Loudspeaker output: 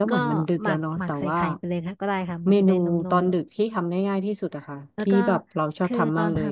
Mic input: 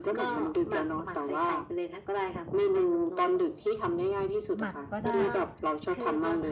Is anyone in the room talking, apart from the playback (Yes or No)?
Yes